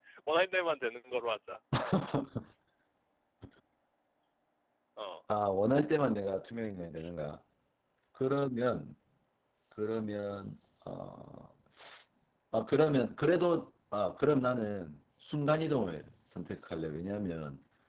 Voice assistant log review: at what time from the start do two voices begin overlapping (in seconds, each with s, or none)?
none